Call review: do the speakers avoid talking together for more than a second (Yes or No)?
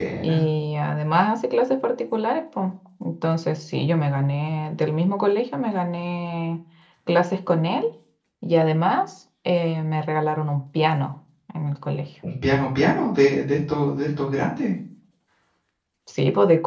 Yes